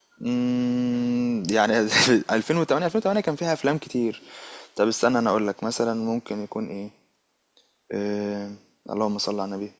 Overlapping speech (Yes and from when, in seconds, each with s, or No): No